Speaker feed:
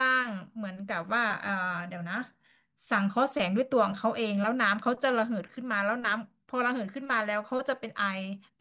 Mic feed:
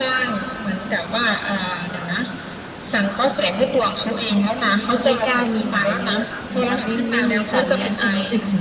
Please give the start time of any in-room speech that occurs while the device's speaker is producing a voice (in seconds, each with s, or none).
5.1 s